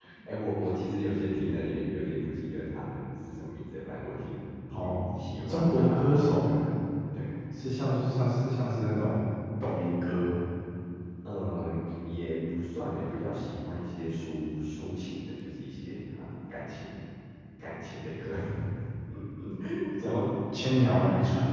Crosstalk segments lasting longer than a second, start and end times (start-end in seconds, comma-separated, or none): 4.7-6.5